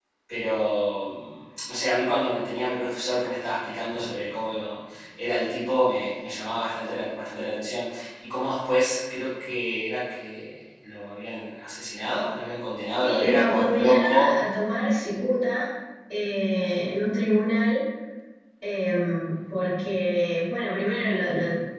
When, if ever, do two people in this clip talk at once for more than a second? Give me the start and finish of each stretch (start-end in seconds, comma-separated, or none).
13.0-14.3